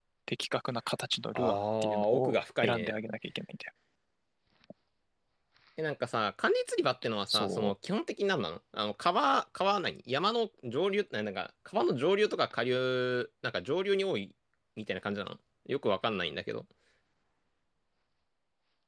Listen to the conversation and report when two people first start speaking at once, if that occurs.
1.4 s

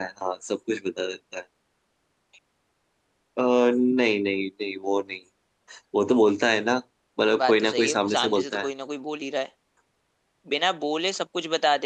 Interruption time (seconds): 7.4 s

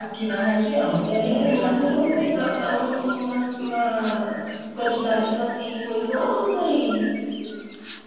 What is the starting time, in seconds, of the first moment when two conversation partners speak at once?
1.0 s

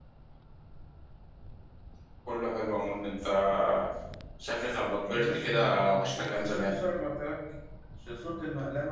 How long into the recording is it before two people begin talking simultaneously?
5.1 s

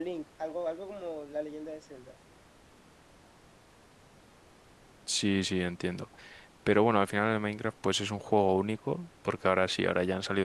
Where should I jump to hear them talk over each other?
none

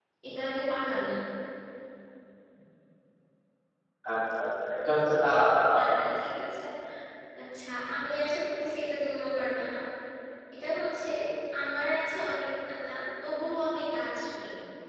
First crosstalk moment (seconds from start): none

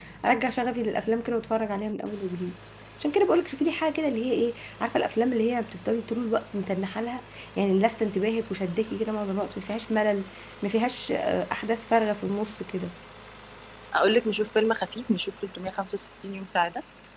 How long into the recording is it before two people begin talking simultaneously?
none

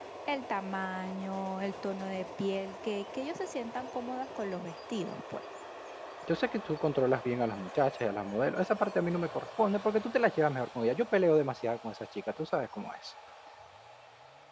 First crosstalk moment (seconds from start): none

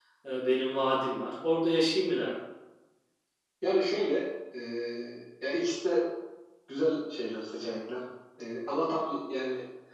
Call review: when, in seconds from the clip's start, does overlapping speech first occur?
none

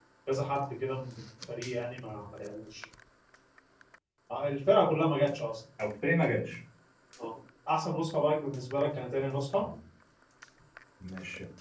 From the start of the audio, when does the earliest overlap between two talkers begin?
none

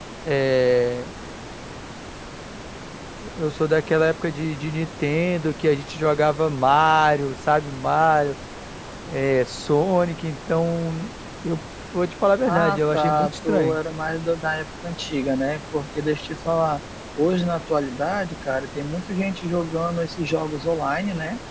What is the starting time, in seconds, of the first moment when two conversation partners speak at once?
12.4 s

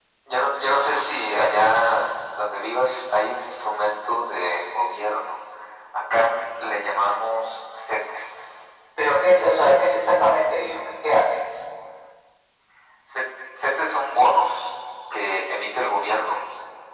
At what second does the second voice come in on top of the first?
none

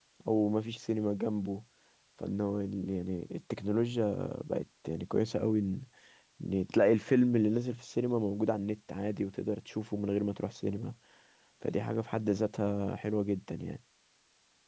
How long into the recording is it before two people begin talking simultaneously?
none

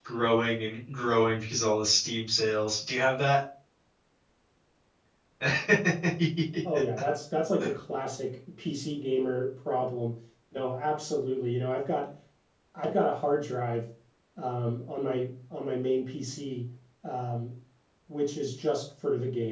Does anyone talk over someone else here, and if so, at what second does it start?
none

